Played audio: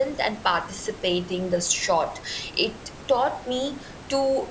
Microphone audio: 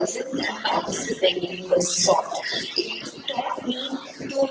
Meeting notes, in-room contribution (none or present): none